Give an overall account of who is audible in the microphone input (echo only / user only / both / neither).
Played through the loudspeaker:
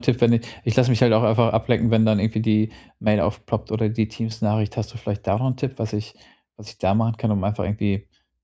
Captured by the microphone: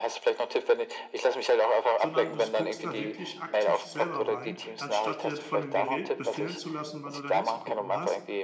both